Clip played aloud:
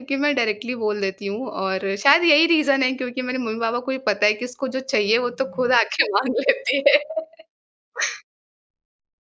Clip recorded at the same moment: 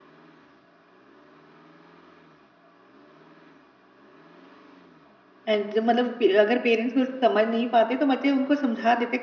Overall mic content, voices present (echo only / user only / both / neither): user only